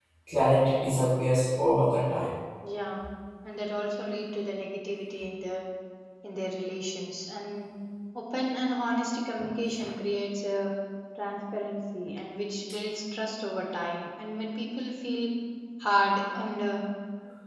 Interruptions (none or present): none